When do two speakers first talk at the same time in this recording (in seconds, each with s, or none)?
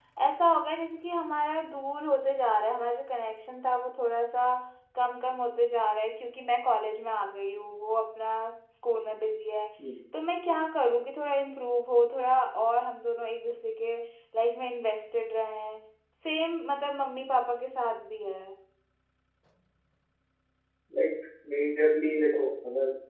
none